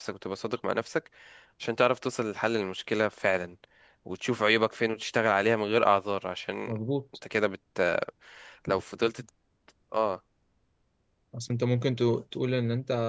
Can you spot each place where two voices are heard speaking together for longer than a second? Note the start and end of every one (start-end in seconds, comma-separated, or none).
none